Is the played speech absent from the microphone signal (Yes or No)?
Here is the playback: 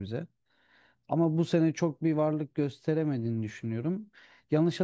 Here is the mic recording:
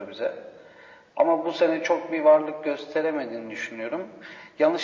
No